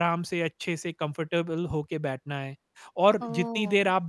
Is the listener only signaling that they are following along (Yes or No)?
No